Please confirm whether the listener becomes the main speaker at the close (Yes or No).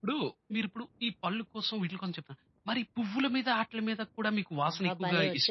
Yes